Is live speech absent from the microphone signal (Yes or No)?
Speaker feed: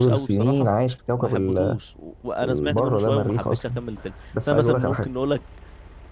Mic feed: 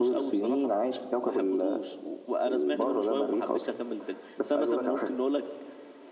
Yes